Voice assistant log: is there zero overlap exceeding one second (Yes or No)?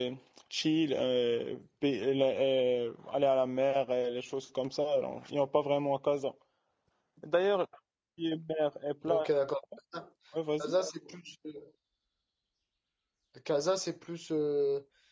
Yes